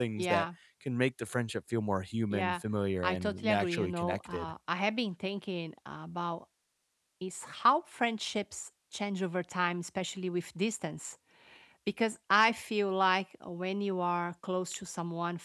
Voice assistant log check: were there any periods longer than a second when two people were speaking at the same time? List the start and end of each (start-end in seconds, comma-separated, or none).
3.0-4.5